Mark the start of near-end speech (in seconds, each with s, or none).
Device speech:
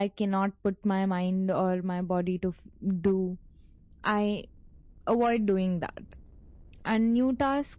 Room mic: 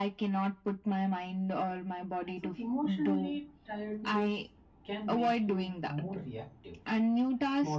2.3 s